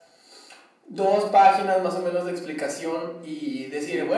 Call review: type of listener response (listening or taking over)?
listening